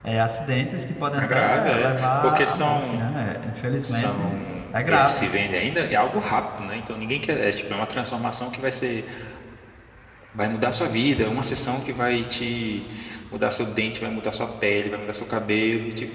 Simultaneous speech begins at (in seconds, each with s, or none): 1.2 s